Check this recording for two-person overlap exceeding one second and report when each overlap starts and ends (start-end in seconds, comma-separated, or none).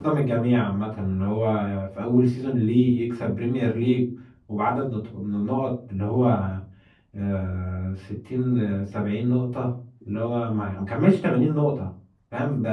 none